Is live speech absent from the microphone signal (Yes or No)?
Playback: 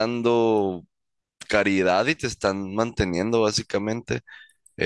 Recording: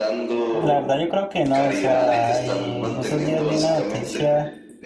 No